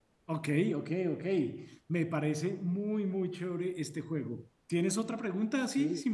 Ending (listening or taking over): taking over